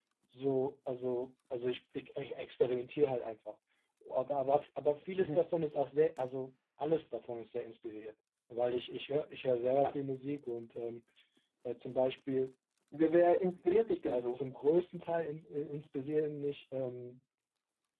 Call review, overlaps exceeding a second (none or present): none